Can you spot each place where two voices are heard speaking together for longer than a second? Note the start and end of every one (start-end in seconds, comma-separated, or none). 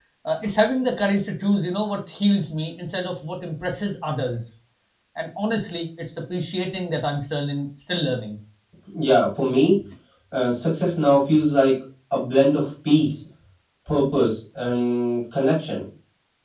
none